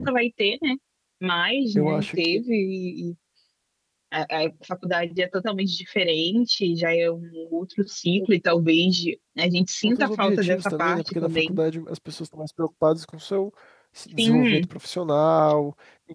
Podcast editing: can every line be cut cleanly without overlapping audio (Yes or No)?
No